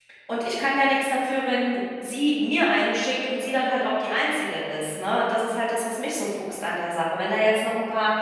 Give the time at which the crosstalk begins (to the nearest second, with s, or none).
none